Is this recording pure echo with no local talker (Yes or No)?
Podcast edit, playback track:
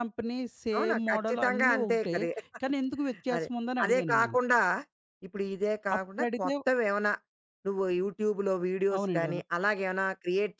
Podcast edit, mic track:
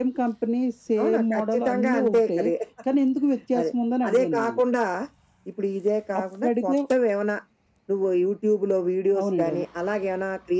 Yes